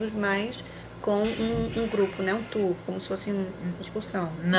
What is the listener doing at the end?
taking over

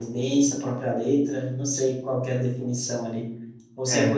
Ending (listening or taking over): listening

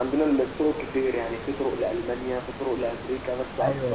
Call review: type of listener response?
taking over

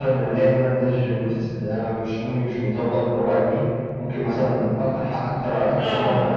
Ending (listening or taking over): listening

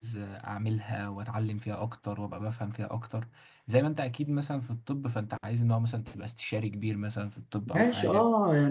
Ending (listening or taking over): taking over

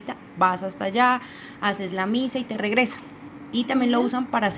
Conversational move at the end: listening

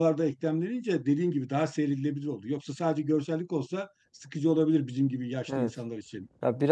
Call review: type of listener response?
taking over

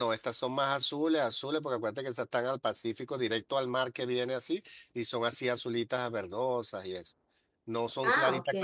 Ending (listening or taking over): listening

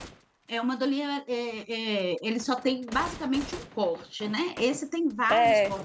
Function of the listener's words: listening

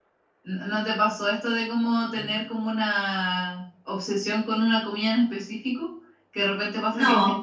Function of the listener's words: listening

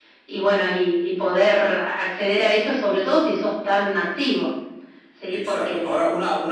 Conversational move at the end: taking over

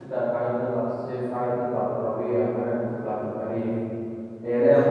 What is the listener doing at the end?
listening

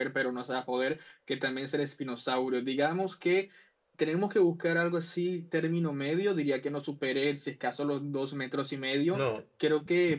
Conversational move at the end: listening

